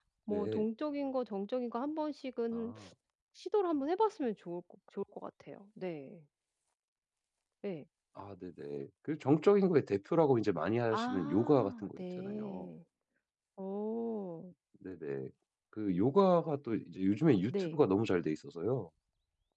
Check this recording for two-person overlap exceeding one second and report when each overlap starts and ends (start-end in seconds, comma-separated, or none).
10.9-12.7